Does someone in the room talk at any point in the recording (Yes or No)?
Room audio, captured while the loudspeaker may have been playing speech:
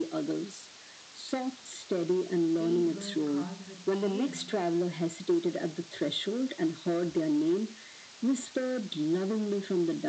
Yes